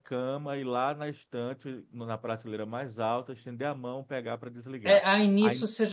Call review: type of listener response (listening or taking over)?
taking over